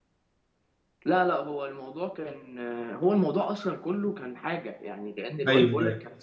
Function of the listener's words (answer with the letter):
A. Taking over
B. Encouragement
B